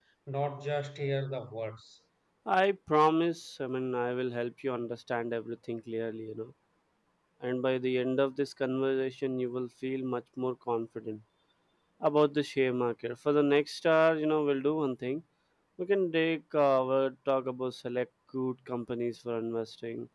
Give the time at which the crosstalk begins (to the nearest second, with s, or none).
none